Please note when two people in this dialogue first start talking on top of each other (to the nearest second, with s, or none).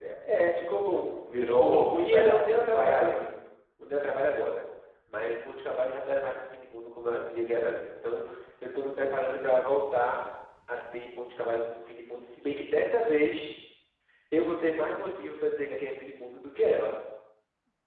2 s